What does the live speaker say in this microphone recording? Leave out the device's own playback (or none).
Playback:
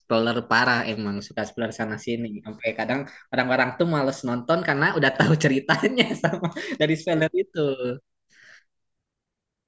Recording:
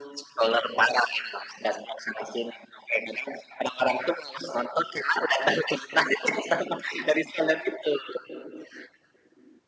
none